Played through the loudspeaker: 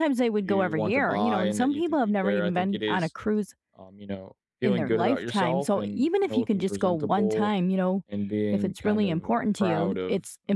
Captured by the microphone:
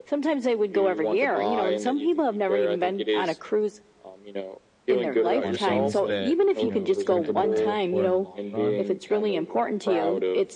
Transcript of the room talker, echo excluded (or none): on things that you know you're going to end up paying for in the long run